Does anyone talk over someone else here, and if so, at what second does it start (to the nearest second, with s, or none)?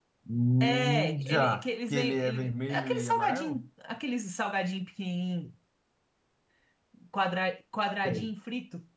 1 s